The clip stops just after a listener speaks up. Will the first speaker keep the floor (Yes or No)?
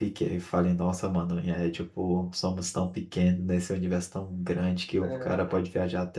Yes